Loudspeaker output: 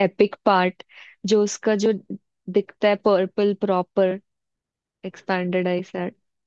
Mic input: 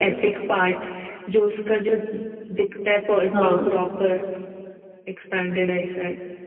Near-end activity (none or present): present